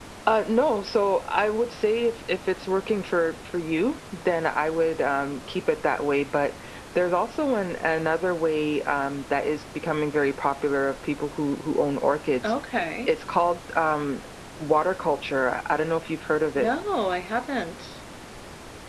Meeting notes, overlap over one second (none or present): none